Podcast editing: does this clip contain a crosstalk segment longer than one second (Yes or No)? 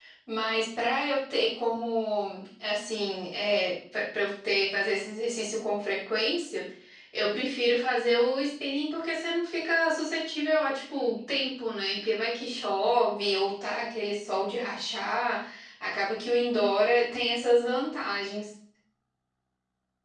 No